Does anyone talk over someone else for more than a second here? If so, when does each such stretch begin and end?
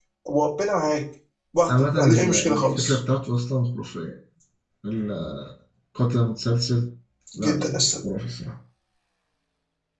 1.7-3.0

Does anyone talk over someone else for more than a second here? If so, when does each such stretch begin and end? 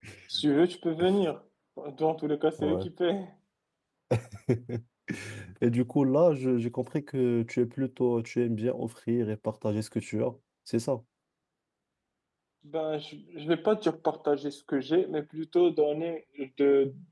none

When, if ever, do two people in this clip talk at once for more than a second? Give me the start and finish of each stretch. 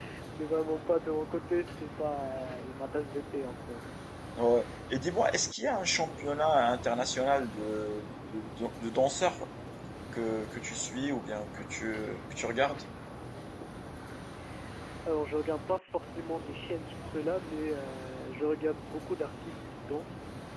none

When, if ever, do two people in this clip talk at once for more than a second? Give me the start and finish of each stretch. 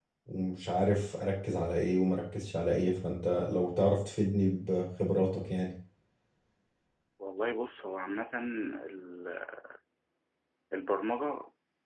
none

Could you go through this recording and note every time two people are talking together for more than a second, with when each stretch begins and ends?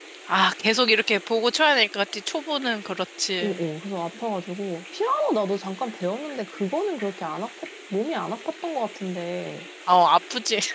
none

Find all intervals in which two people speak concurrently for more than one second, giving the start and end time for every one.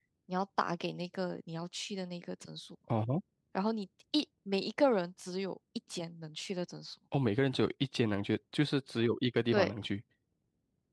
none

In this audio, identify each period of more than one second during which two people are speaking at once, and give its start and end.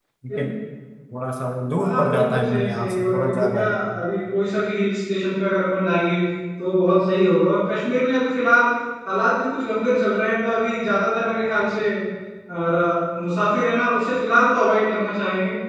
1.8-3.7

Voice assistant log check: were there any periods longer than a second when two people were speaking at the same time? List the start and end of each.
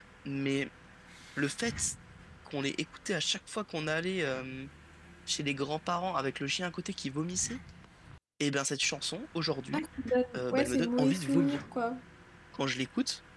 10.4-11.6

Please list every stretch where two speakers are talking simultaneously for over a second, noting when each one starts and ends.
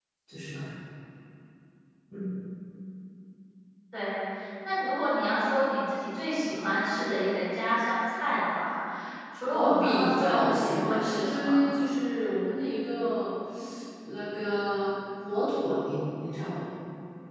9.5-11.6

